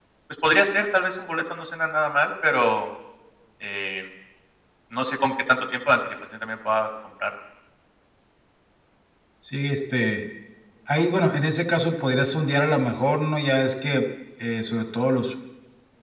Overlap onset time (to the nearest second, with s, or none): none